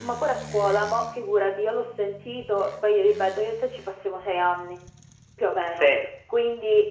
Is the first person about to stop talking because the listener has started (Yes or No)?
No